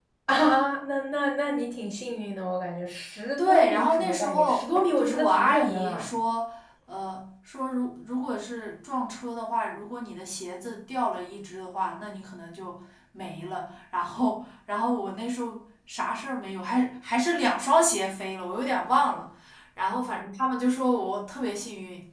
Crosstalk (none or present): present